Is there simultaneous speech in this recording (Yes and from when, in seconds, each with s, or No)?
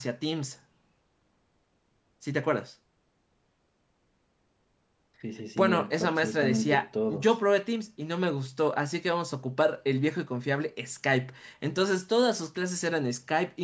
Yes, from 5.6 s